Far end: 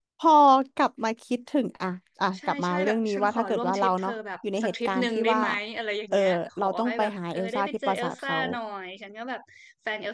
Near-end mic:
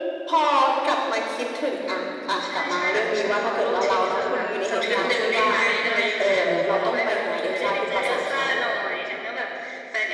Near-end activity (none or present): present